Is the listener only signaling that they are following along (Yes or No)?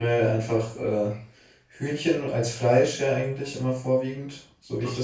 Yes